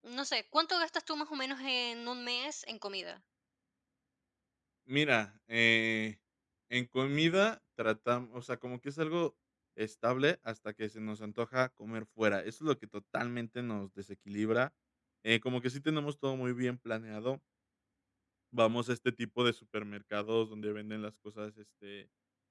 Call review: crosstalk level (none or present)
none